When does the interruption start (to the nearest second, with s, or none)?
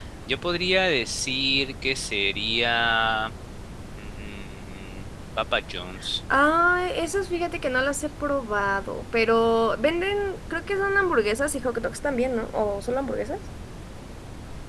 none